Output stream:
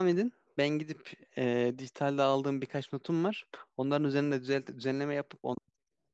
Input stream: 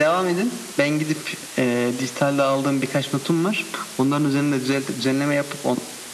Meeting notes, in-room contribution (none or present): none